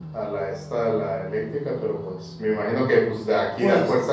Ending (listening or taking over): listening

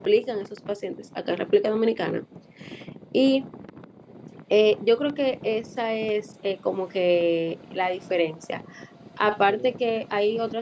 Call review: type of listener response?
listening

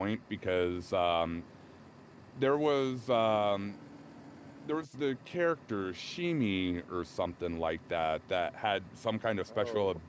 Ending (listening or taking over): listening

